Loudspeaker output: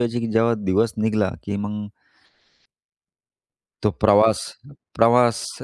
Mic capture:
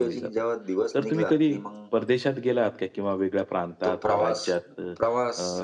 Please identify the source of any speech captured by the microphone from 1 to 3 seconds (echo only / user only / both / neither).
both